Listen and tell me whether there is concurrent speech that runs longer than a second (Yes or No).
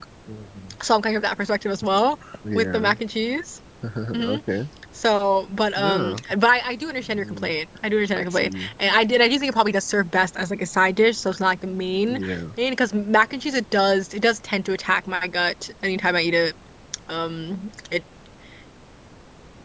No